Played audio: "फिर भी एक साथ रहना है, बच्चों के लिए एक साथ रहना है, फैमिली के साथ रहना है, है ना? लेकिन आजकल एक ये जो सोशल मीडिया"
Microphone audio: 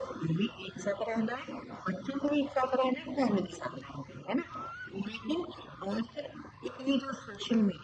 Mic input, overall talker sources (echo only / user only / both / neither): echo only